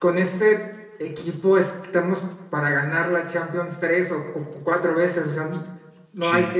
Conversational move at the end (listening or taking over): listening